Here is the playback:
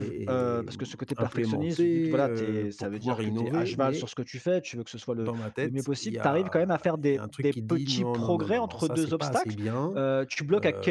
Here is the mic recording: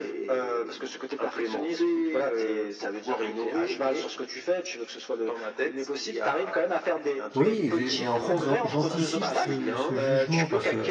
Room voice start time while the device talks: 7 s

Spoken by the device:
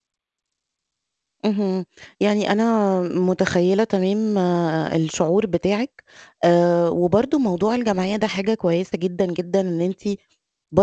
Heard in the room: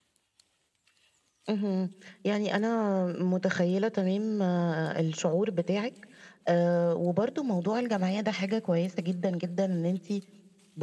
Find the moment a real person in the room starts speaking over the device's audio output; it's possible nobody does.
none

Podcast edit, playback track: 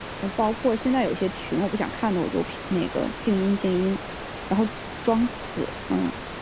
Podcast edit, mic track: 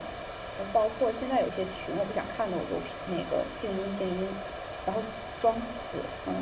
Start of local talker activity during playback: none

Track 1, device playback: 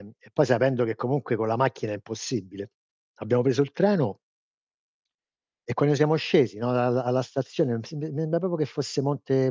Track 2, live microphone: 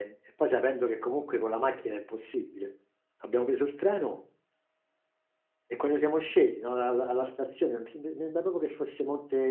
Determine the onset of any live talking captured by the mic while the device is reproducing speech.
none

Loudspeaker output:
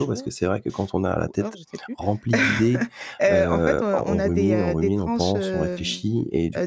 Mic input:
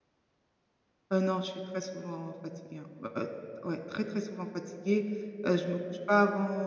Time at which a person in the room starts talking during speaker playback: 1 s

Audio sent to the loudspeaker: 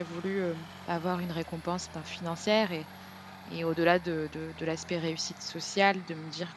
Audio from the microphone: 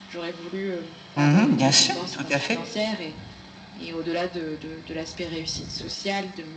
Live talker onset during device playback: 1 s

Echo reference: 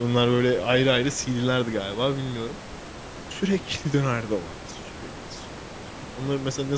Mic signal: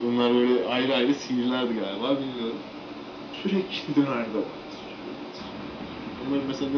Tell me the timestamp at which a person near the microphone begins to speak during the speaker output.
none

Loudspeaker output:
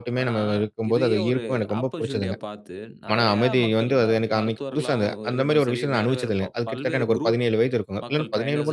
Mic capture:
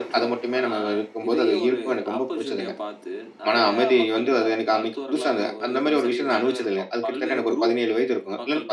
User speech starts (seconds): none

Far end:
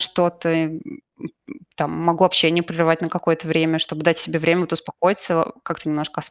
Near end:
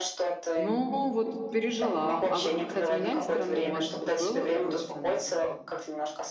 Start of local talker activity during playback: 1 s

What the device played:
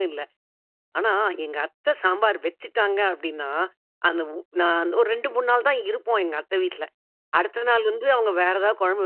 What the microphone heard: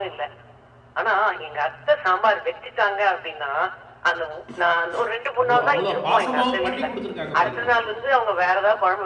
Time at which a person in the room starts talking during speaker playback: 5 s

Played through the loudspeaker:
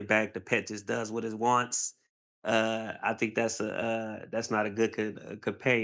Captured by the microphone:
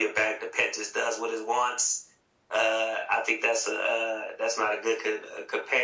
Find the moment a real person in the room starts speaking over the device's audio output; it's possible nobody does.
none

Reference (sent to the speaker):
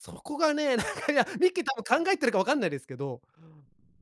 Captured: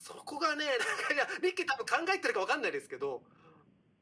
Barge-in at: none

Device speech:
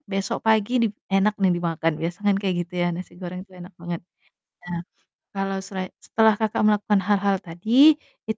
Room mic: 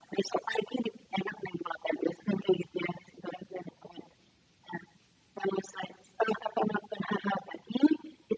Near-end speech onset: none

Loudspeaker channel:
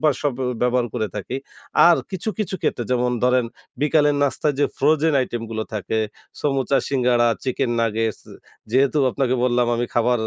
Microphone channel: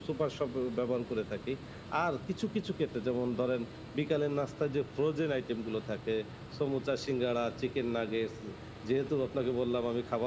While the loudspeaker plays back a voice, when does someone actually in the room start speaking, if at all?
none

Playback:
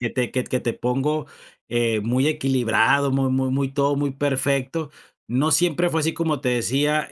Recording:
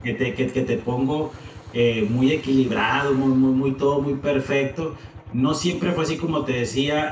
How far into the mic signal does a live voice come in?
none

